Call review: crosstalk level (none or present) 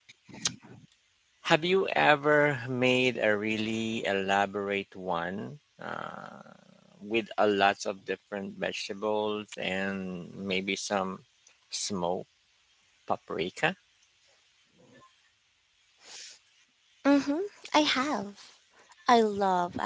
none